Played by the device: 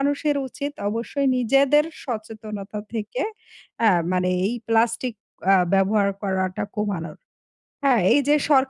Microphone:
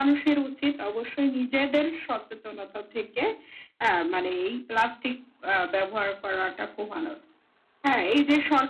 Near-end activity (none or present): none